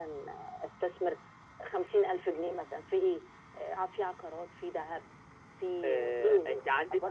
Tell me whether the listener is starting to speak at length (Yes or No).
Yes